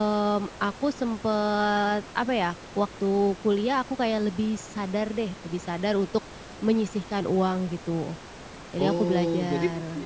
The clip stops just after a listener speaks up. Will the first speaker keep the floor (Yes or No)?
No